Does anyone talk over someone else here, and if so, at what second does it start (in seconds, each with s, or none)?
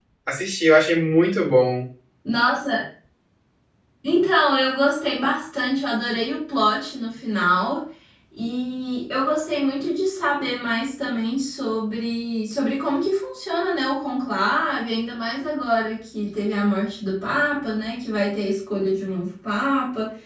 none